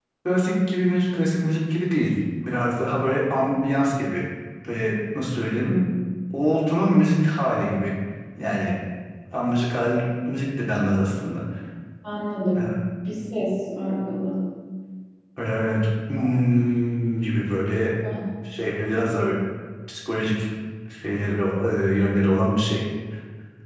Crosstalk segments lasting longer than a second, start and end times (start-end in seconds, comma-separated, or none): none